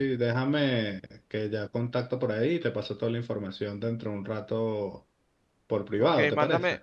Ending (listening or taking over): taking over